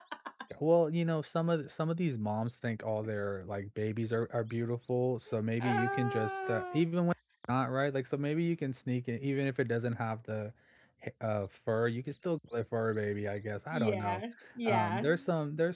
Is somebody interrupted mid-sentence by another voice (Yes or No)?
Yes